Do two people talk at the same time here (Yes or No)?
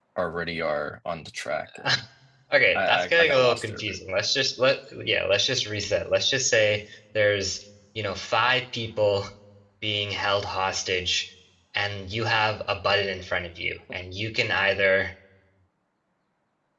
Yes